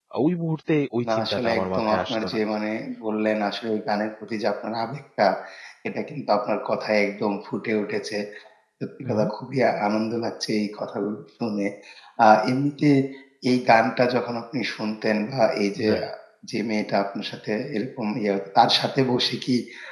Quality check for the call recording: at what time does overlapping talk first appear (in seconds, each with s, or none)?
1.1 s